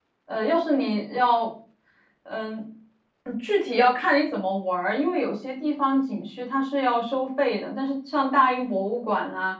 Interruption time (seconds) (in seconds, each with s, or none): none